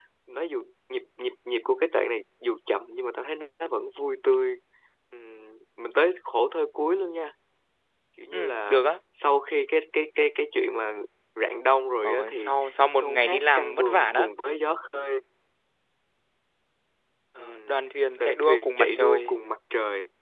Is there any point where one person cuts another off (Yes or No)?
Yes